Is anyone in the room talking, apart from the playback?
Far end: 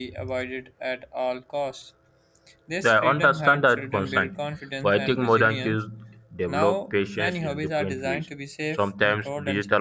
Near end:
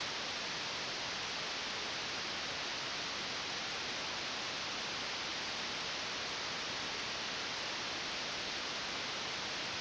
No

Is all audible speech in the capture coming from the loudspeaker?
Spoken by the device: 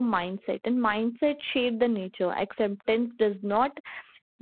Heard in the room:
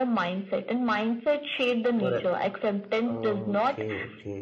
No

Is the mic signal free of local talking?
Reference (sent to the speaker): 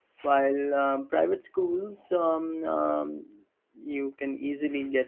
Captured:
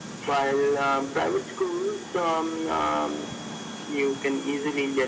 Yes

